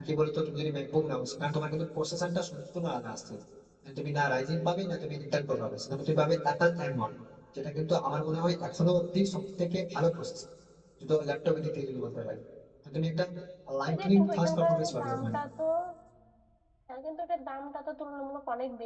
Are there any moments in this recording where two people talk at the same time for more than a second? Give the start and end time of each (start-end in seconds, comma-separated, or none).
13.9-15.4